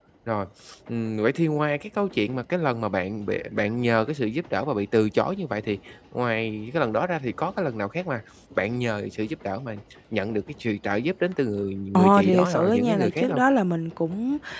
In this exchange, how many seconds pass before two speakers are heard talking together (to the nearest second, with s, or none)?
12 s